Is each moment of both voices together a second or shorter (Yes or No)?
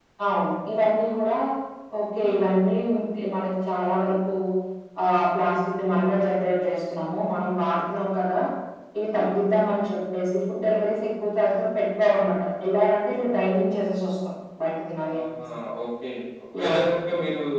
Yes